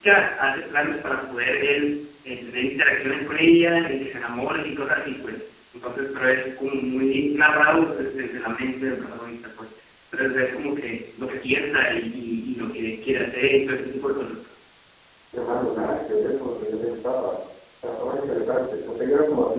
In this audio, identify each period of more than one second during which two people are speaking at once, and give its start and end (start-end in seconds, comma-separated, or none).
none